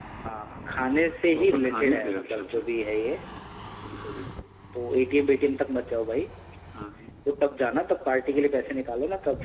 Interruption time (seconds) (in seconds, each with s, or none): 1.3 s